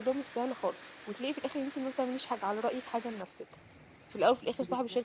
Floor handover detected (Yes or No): No